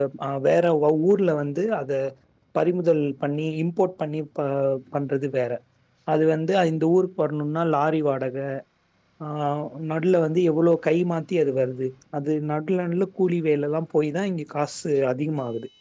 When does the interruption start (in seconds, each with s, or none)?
none